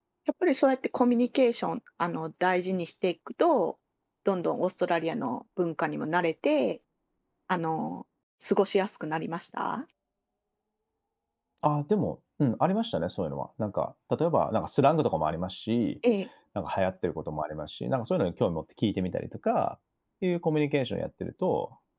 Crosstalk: none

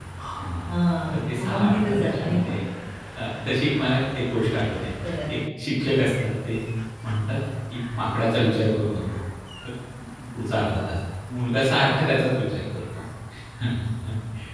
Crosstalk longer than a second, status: present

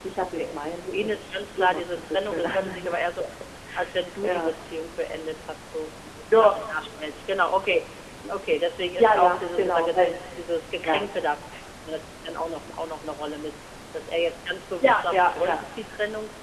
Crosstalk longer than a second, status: present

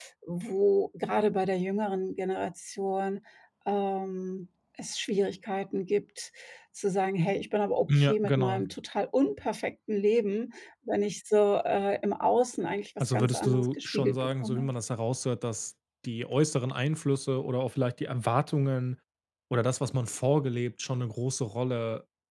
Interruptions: present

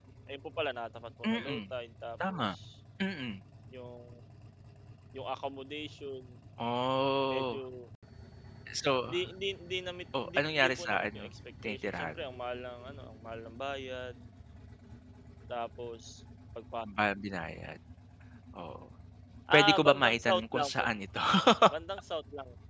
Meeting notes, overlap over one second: present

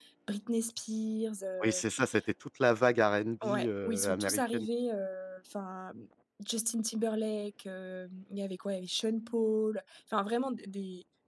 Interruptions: present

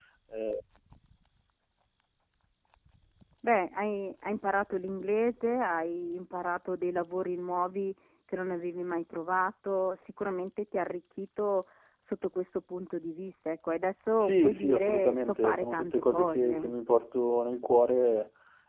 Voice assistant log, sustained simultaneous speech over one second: present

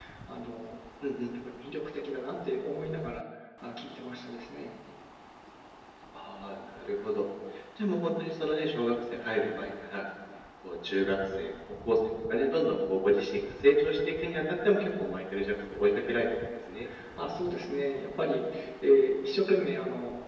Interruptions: none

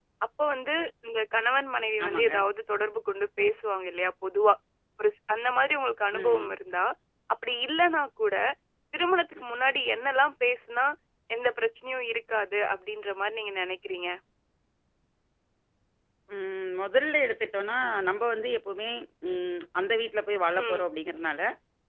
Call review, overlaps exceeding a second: none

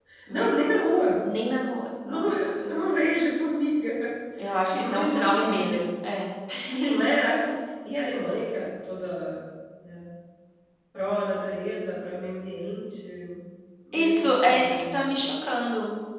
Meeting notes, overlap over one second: present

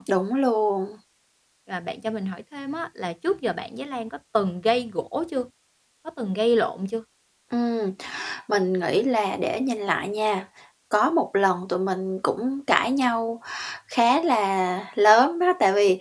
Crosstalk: none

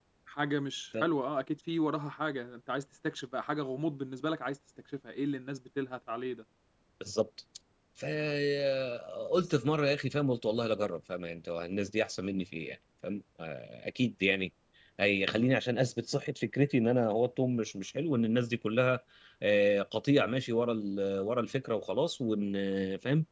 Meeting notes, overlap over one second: none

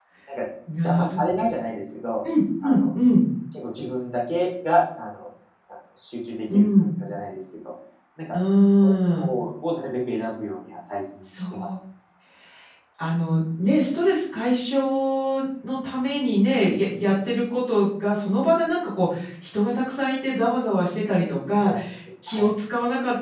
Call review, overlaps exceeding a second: none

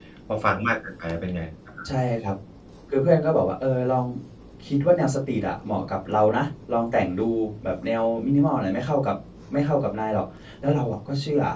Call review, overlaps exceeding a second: none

